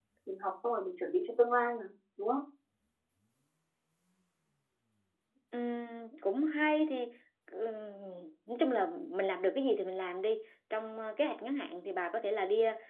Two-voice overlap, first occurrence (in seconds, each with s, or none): none